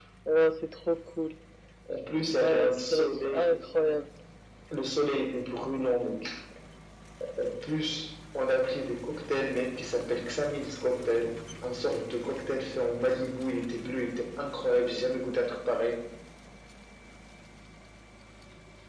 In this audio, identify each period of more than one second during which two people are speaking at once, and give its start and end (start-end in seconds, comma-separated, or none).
2.3-3.5